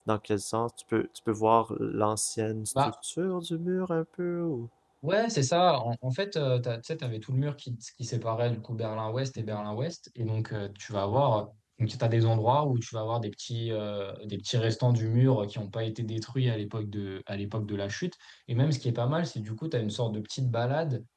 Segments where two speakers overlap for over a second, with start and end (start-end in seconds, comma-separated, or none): none